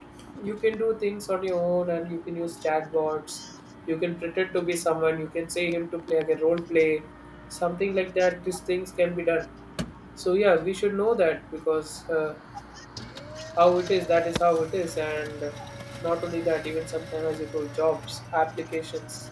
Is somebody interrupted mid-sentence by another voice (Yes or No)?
No